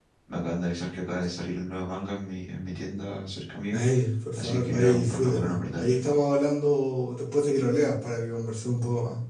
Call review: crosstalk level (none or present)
present